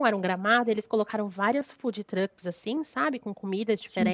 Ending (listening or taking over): listening